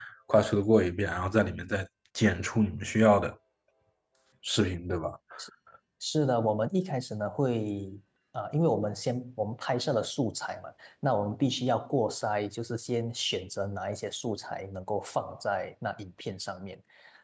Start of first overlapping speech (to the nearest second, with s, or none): none